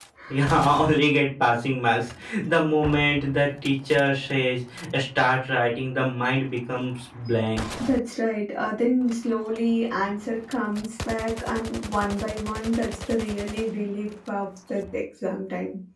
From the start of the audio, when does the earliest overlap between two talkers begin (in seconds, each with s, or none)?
none